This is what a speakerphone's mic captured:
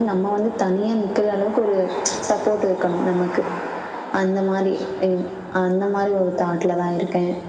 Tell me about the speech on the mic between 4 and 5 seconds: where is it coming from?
echo only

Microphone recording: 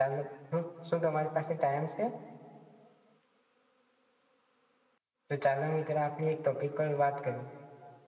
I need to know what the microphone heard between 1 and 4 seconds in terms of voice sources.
user only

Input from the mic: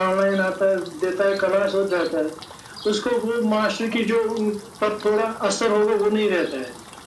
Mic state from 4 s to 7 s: echo only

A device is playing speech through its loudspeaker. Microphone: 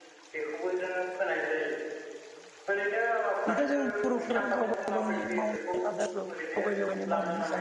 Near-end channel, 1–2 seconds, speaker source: echo only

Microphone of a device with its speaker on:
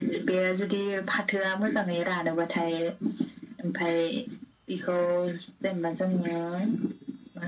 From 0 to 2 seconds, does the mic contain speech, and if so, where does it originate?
echo only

